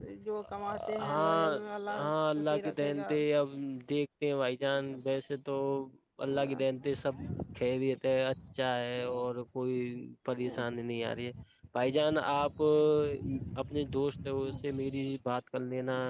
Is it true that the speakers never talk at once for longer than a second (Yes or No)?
No